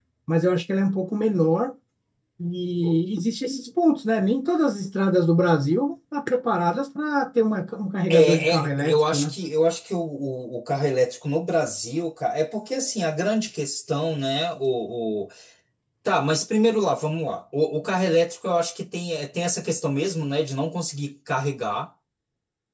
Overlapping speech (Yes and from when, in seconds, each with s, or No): Yes, from 8.1 s